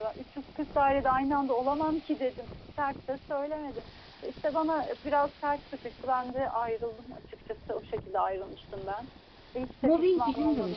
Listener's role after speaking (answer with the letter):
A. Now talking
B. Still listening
A